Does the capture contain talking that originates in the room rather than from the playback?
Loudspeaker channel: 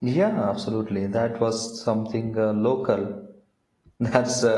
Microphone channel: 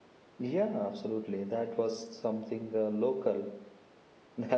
No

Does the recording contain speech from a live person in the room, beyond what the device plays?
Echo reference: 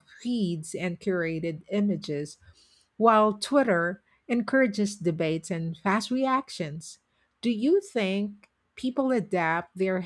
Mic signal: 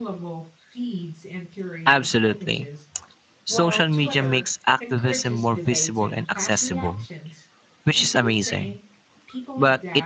Yes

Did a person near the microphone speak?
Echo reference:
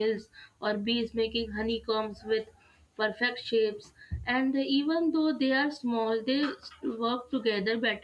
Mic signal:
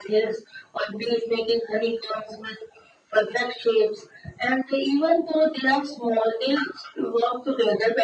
No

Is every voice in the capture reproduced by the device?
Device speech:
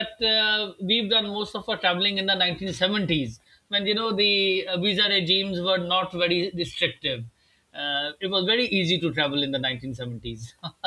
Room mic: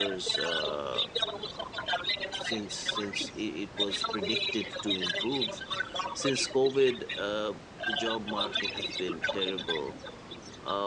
No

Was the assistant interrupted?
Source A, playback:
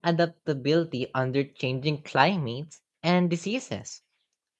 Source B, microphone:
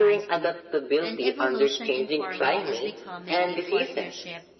Yes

